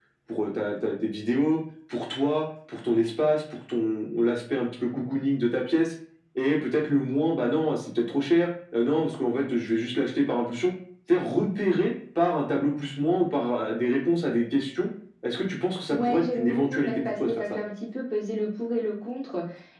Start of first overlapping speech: 15.9 s

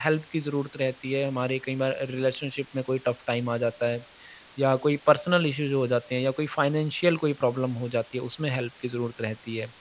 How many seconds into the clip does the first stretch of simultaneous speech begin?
none

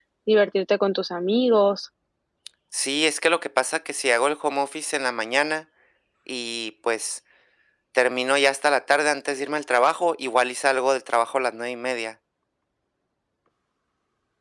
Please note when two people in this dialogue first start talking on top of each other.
none

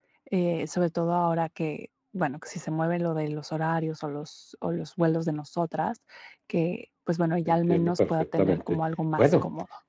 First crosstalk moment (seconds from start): 7.5 s

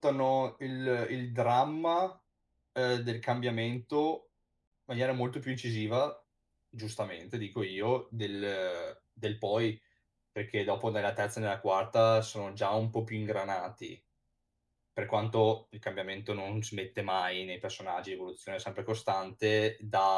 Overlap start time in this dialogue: none

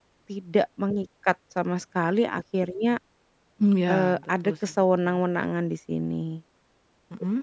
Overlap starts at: 3.9 s

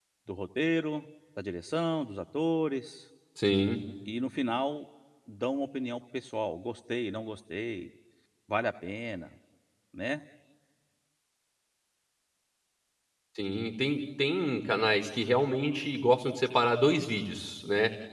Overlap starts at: none

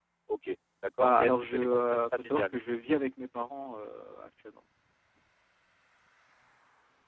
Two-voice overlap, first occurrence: 1.0 s

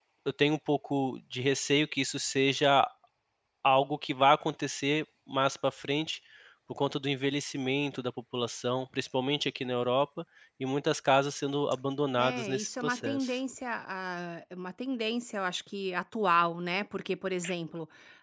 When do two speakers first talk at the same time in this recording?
12.2 s

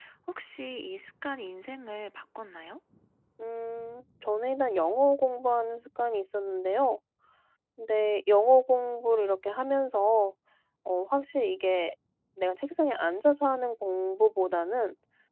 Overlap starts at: none

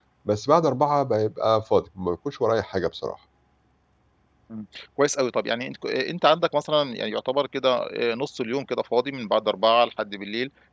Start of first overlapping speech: none

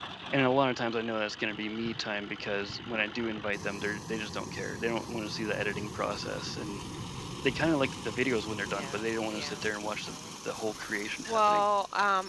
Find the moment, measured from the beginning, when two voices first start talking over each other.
8.7 s

